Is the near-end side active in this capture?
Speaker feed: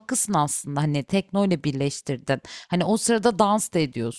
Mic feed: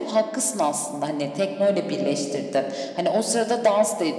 No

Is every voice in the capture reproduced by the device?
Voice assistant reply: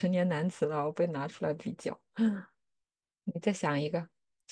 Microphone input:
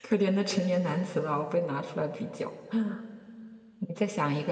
Yes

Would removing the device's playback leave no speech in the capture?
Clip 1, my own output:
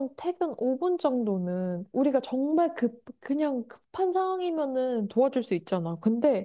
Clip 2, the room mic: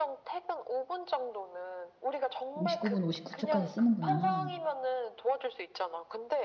No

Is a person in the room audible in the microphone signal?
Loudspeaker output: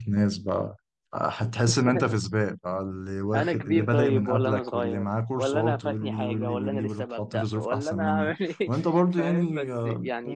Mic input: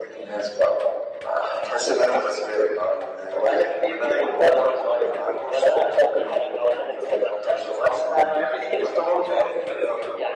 No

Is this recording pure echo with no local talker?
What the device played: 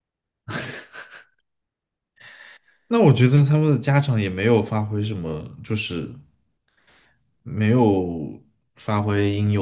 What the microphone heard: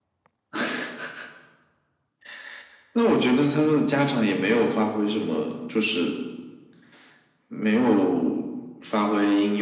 Yes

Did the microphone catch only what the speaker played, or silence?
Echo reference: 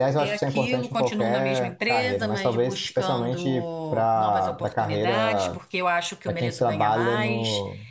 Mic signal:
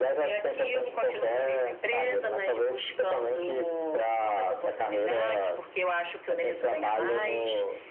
Yes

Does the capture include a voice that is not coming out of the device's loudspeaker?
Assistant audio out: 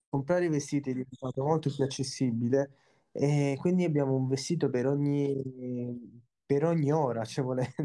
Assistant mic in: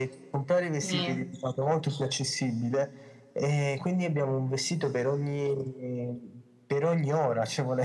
Yes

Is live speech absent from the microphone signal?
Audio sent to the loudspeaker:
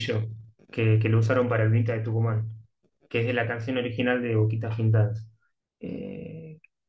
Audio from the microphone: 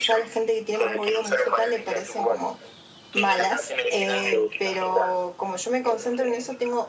No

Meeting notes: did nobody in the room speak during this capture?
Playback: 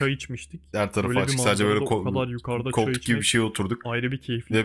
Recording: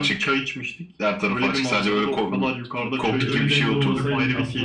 No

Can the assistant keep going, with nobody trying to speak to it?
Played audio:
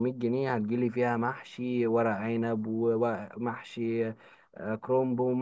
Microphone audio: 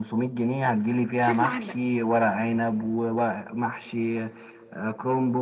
No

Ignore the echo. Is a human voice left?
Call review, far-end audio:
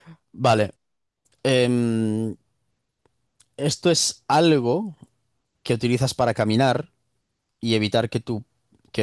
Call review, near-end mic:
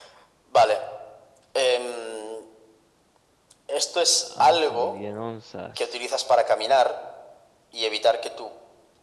Yes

